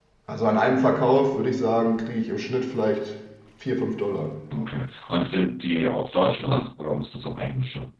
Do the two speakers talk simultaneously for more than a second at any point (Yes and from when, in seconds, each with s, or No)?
No